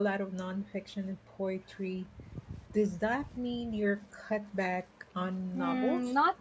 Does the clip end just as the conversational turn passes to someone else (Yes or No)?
Yes